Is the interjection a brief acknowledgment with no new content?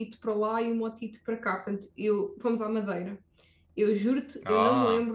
Yes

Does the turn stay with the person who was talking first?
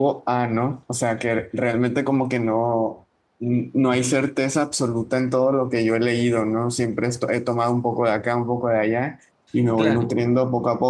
Yes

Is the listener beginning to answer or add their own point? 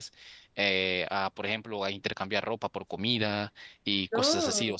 No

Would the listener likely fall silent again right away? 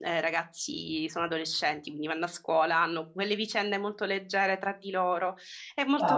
No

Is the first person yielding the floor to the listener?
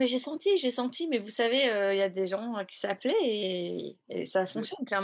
No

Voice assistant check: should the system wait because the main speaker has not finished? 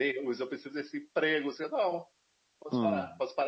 Yes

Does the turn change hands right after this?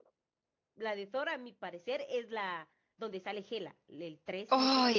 Yes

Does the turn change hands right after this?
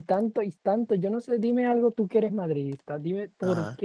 No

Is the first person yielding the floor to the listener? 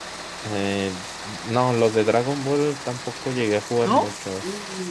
Yes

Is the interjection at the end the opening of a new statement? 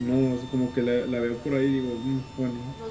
Yes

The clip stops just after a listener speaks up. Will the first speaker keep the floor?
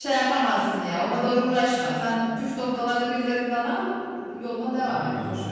No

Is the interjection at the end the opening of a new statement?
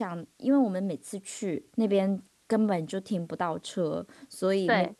No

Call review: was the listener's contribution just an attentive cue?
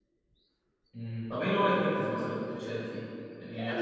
No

